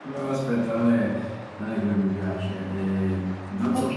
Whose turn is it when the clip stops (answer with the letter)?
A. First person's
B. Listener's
A